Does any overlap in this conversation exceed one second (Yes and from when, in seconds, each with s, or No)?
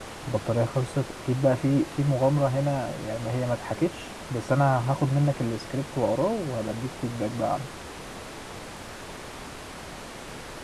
No